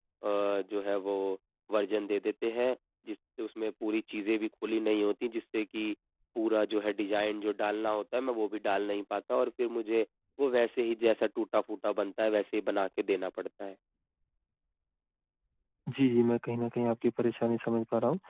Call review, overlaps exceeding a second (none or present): none